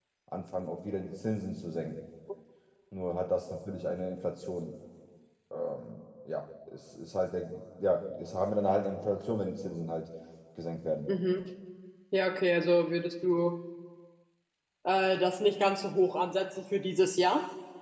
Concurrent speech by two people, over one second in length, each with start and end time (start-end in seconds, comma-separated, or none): none